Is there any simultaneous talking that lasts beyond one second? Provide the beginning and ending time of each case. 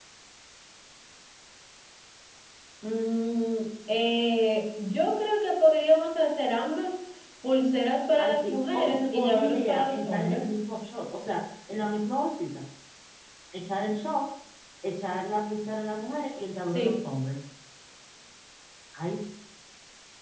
8.2-10.5

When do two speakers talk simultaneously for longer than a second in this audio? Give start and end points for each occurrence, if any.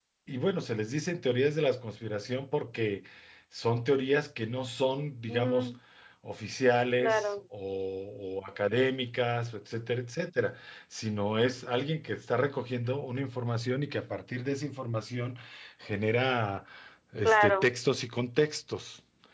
none

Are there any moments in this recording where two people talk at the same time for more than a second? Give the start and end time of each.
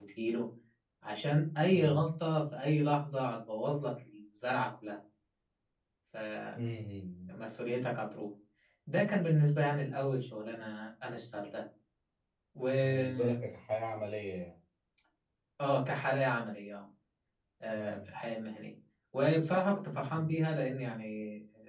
none

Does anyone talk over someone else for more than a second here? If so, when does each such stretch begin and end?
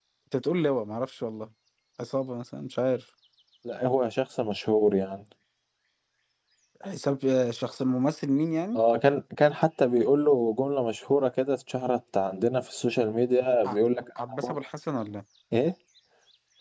none

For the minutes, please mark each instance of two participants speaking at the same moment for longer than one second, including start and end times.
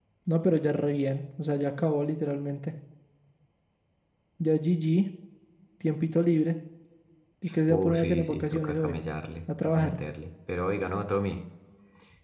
7.7-9.0

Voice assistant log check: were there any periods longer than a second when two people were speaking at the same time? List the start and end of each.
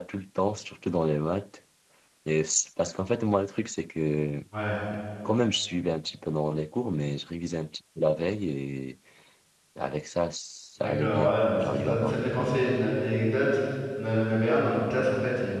10.8-12.6

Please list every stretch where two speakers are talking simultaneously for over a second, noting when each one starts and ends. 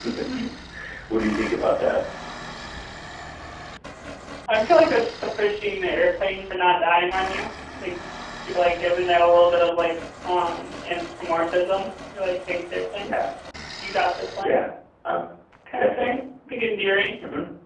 none

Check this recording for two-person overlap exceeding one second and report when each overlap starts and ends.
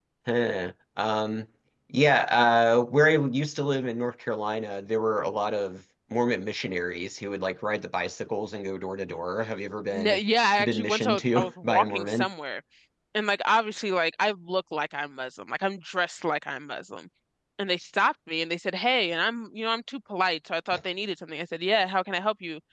10.6-12.3

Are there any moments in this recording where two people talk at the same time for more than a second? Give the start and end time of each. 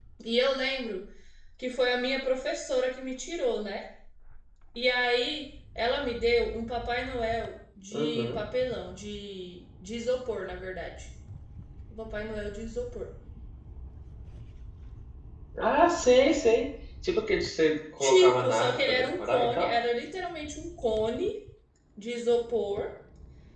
18.0-19.7

